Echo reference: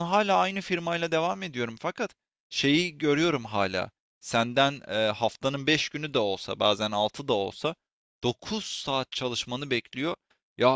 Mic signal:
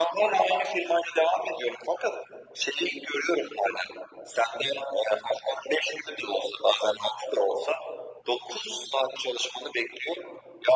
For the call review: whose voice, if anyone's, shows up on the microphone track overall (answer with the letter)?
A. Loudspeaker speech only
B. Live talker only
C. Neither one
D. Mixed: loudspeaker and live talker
A